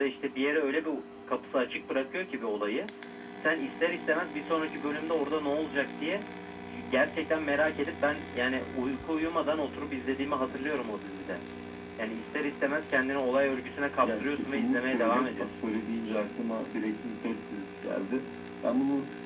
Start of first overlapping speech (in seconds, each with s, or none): 14.0 s